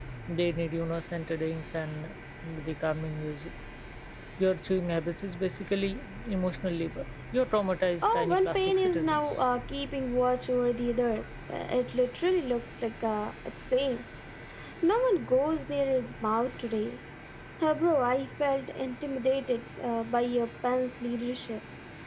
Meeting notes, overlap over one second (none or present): present